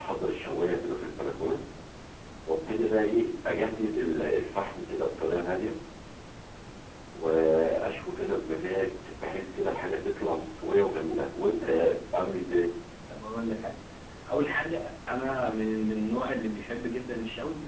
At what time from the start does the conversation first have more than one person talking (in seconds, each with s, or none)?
none